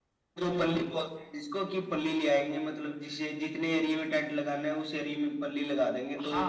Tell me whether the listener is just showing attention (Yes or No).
No